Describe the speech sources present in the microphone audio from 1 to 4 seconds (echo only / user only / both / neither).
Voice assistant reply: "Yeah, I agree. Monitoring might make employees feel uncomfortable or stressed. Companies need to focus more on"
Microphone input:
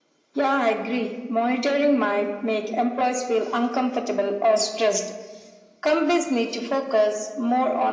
echo only